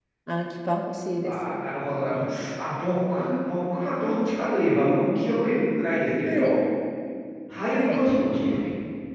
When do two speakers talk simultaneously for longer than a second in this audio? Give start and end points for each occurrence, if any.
none

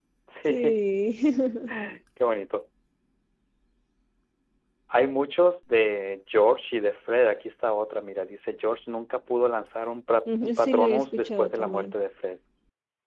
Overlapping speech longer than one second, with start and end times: 10.3-11.9

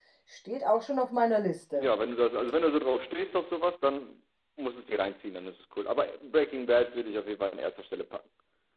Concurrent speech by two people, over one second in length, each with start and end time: none

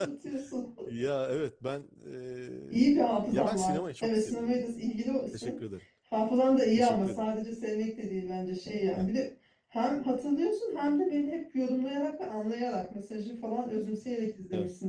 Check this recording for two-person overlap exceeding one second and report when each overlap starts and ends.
2.7-4.7

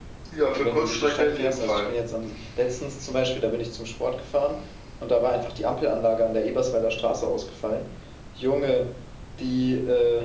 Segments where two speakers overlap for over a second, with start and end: 0.5-1.9

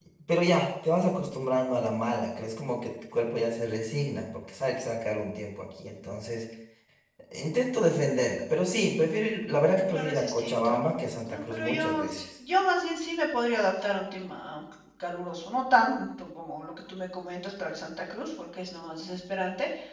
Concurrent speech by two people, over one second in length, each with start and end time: 9.9-12.2

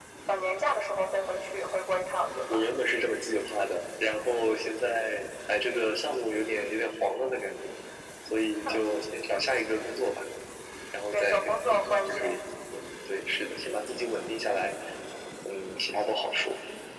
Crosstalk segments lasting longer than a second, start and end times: 11.1-12.4

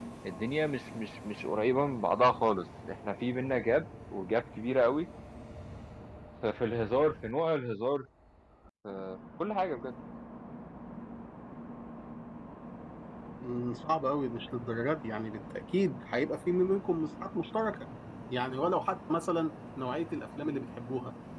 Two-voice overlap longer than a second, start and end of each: none

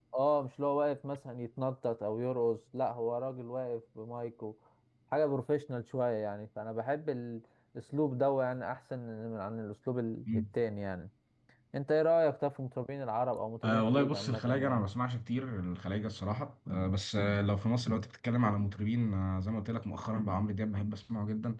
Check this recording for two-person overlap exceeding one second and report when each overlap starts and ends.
13.6-14.9

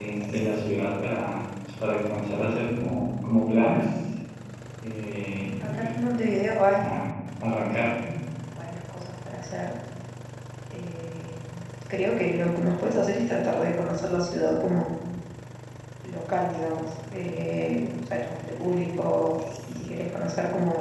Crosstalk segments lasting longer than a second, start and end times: none

